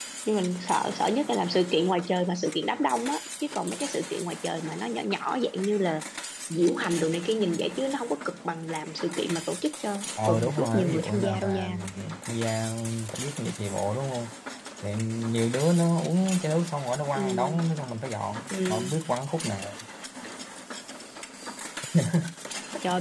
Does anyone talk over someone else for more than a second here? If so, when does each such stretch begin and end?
10.2-11.7

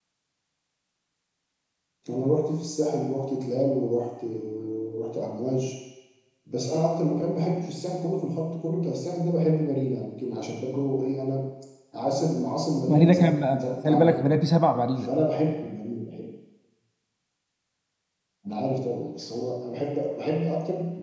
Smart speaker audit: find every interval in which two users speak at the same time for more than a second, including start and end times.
12.9-14.2

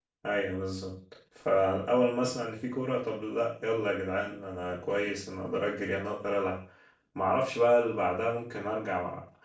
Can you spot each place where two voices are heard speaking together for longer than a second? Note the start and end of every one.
none

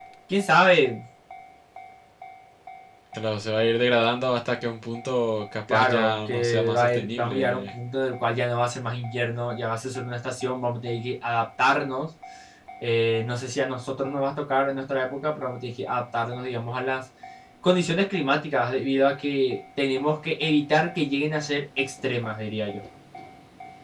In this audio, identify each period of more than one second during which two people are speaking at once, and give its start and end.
5.7-7.7

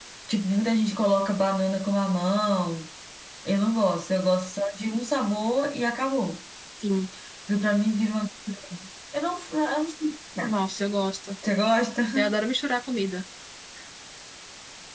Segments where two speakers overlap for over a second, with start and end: none

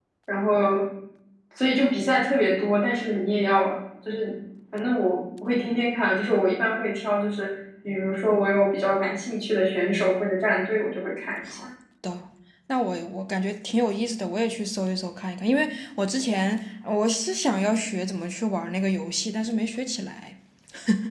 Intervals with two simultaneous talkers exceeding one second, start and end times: none

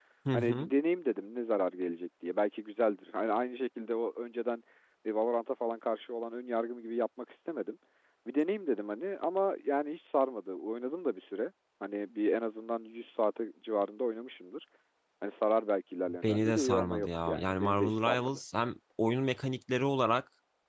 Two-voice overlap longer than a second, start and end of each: 16.2-18.4

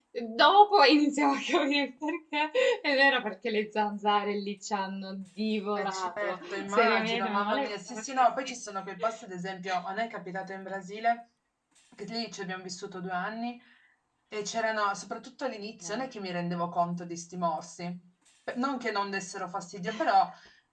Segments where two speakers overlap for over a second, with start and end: 5.8-8.5

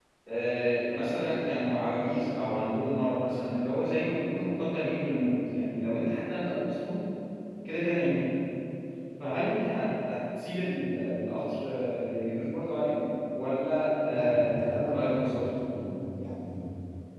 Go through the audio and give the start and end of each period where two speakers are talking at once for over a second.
14.1-15.4

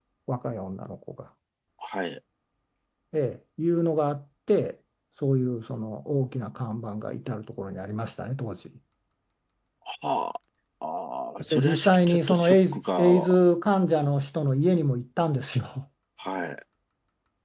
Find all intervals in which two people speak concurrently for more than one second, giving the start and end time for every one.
11.5-13.3

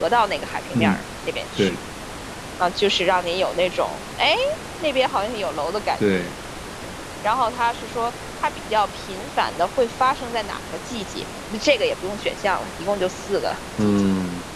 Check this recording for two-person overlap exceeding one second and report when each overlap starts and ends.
none

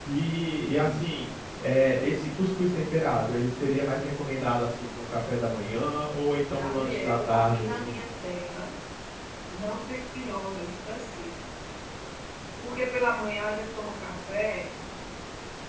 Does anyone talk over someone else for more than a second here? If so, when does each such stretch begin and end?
6.5-8.0

